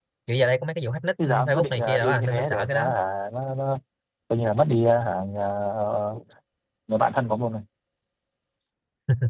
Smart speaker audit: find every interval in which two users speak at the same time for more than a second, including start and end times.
1.3-2.9

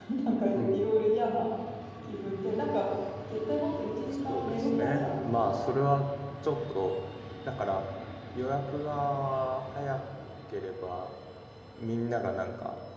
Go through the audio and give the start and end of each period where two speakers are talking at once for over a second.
4.3-5.7

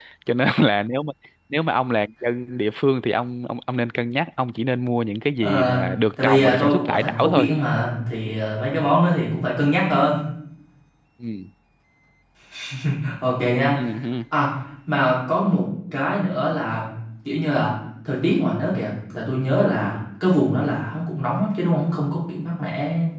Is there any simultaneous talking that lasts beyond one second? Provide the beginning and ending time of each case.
6.2-7.5

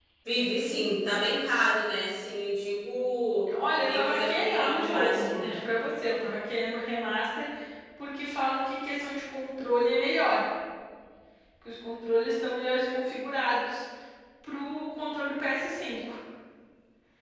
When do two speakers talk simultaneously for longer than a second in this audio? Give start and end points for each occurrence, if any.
3.8-5.6

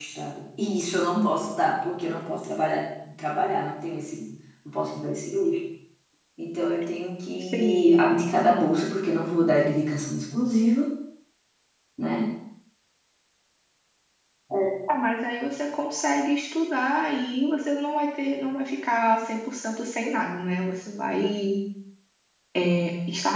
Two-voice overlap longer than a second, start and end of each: none

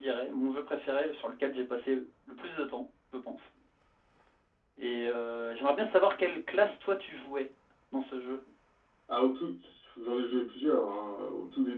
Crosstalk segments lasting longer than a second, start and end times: none

